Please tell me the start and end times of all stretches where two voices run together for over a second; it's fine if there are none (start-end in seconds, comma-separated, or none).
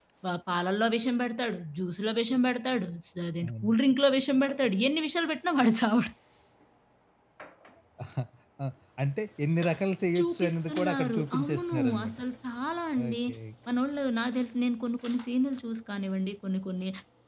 10.2-12.2